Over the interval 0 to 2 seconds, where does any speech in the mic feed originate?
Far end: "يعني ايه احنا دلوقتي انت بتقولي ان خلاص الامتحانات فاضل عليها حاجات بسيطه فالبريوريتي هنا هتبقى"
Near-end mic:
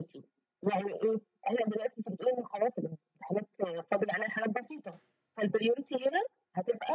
echo only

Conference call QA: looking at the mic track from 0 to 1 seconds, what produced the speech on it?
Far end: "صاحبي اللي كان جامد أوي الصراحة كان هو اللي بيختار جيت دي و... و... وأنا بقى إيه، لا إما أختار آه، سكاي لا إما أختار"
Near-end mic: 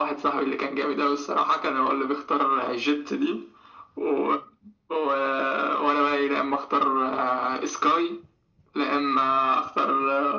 echo only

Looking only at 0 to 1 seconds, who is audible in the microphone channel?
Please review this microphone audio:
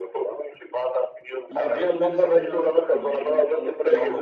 echo only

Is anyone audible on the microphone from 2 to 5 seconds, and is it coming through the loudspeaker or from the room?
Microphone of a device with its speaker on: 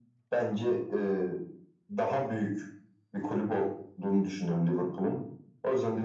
echo only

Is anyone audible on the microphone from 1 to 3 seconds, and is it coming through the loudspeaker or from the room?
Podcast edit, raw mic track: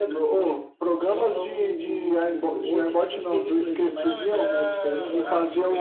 both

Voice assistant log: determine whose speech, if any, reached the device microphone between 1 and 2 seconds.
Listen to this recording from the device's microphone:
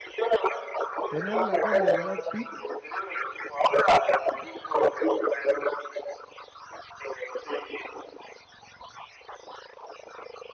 both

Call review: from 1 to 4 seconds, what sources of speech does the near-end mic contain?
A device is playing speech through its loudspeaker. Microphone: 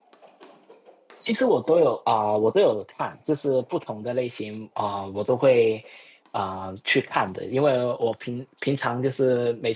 user only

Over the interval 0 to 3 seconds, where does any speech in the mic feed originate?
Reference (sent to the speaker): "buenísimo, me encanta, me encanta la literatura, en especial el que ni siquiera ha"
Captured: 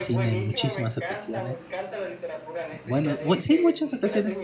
both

